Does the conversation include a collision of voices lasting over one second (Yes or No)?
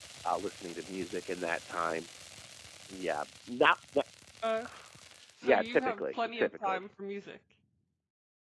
Yes